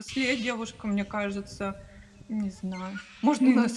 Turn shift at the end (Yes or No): No